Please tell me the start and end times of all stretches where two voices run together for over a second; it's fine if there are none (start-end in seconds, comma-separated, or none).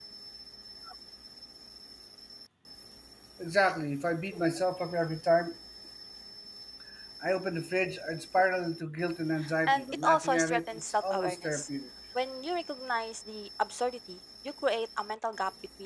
9.7-11.7